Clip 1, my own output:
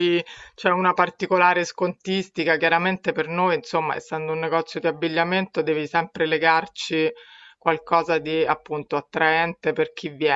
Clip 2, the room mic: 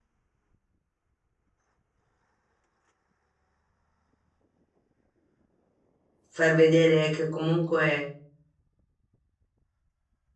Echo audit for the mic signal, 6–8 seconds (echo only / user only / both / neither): user only